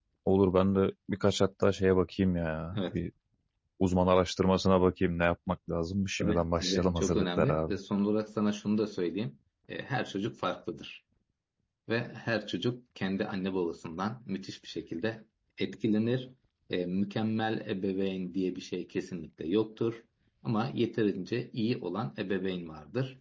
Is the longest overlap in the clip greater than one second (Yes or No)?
Yes